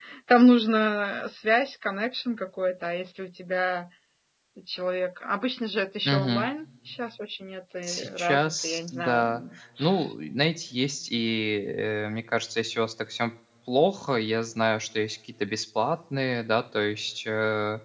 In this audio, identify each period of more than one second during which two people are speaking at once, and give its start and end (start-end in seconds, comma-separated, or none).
7.9-9.4